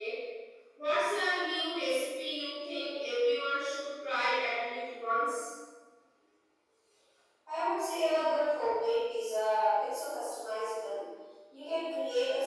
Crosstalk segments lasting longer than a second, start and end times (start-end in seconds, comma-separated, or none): none